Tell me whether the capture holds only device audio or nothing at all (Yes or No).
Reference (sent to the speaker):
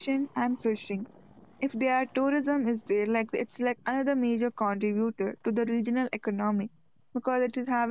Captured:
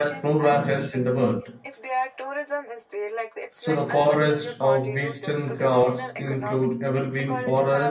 No